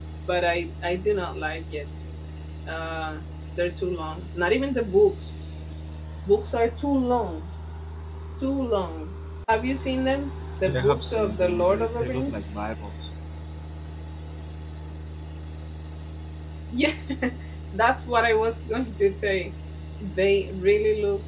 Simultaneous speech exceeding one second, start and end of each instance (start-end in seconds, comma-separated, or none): 10.6-12.4